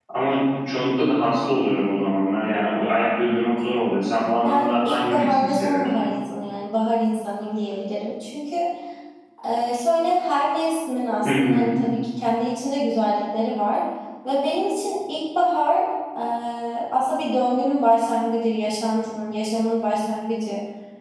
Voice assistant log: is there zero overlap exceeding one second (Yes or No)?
No